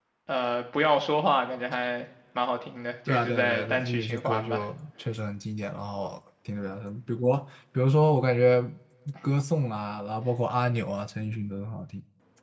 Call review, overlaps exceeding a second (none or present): present